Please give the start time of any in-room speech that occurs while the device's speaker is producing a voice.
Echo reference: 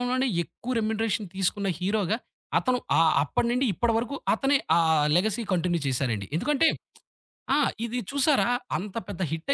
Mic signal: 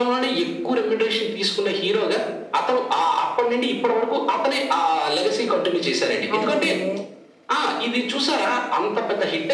6.4 s

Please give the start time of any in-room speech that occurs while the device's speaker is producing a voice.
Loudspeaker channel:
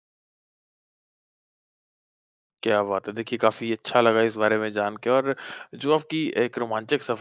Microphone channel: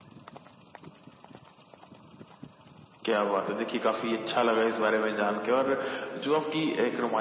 none

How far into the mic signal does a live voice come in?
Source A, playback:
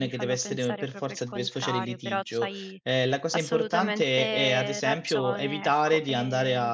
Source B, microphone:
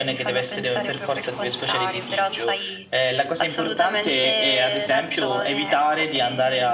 none

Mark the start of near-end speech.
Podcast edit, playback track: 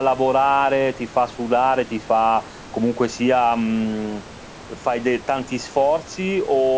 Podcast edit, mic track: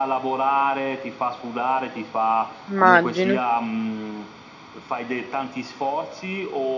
2.7 s

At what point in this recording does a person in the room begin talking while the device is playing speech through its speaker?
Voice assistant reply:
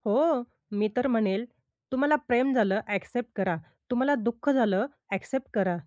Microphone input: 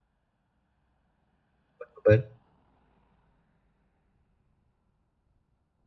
1.8 s

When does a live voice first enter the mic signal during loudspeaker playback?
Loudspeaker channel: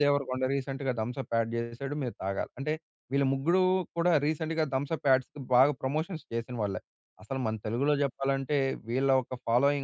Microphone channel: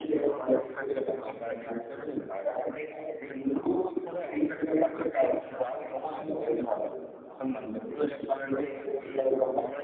none

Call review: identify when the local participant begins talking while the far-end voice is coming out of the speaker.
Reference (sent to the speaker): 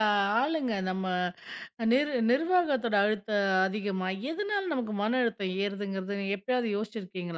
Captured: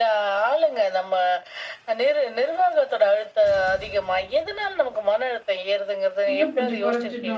6.3 s

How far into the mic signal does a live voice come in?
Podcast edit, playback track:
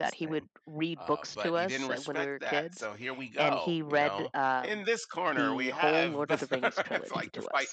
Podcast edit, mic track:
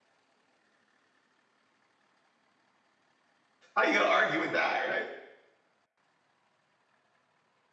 3.8 s

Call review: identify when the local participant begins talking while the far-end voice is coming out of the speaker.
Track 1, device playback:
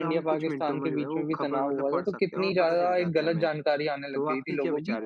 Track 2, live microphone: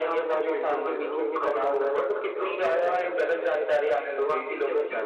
none

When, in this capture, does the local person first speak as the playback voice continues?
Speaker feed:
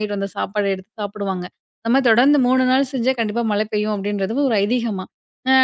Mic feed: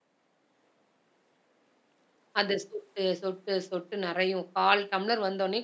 2.4 s

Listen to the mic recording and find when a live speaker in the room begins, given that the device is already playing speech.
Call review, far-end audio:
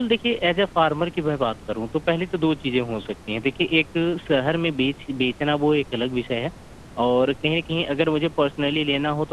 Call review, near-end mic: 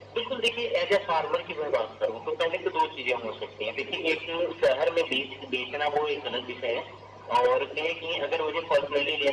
none

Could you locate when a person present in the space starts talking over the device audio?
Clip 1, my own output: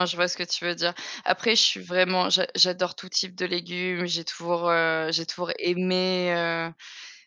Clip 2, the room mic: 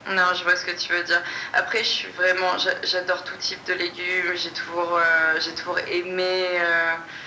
none

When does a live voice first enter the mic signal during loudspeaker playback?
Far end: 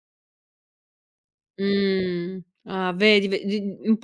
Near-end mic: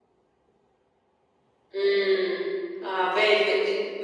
none

